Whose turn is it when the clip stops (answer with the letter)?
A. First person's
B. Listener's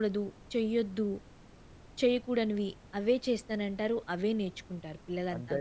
B